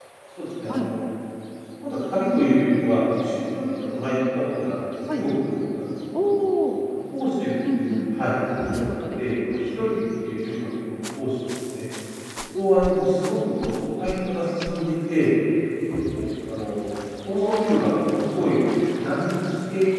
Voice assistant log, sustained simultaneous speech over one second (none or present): none